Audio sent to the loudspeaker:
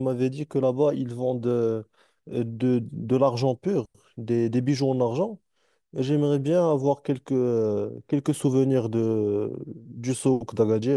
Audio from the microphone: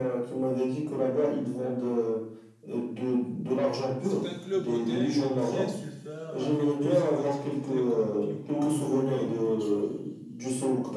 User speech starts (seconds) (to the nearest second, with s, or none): 4 s